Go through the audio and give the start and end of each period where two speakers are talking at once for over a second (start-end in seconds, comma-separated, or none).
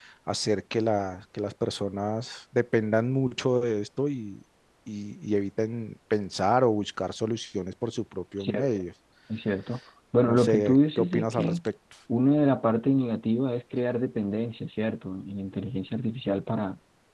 10.2-11.6